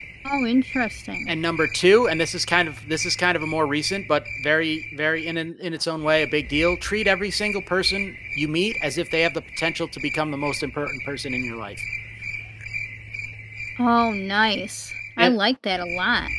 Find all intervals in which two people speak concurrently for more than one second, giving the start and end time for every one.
none

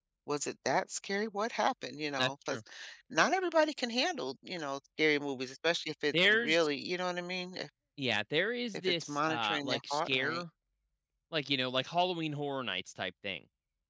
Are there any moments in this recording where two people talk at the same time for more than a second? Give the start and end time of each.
8.7-10.4

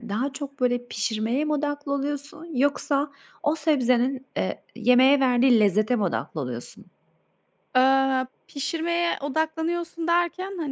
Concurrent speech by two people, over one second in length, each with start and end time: none

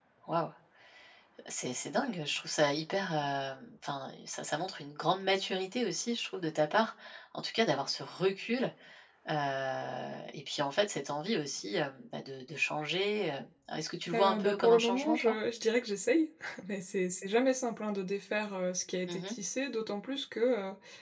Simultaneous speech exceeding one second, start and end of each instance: 14.1-15.3

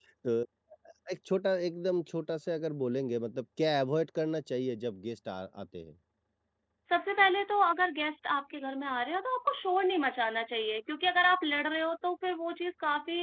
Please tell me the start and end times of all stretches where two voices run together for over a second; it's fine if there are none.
none

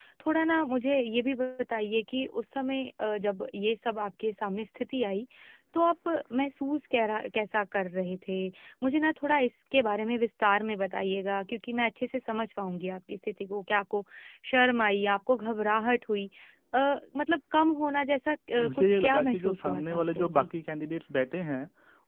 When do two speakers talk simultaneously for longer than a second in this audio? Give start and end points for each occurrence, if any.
18.6-20.5

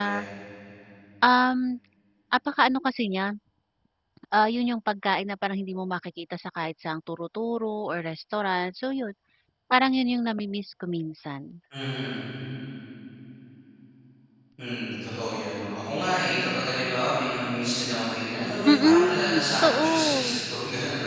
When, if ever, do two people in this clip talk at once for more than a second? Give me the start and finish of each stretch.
18.7-20.4

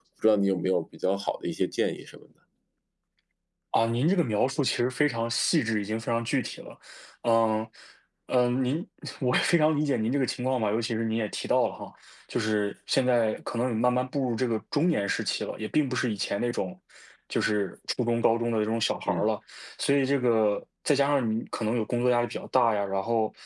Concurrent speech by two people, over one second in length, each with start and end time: none

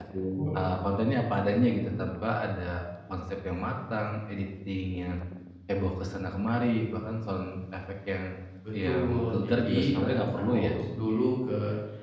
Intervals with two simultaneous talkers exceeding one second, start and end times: 8.8-10.8

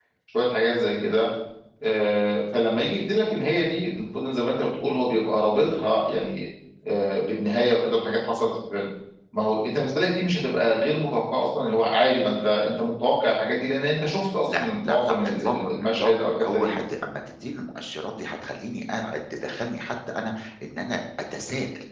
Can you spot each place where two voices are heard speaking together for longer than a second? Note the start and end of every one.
14.6-16.7

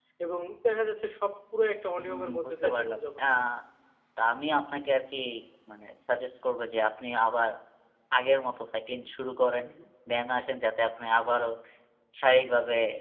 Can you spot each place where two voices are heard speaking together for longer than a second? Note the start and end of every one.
2.0-3.2

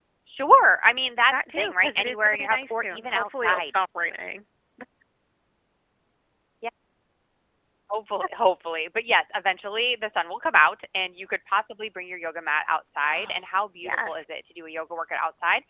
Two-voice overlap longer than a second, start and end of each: 1.3-3.6

